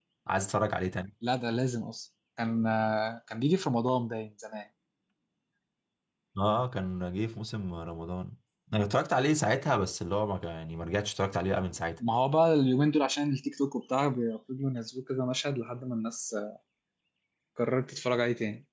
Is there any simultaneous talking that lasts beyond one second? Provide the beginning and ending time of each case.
none

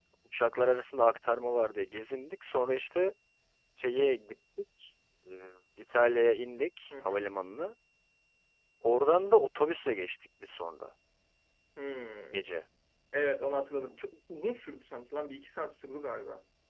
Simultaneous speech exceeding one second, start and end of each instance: none

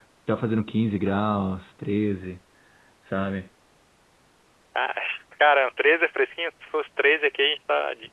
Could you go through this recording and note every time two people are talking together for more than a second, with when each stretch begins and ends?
none

